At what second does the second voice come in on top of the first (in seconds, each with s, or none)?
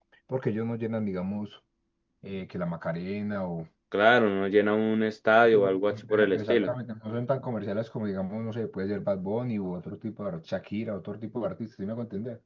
5.3 s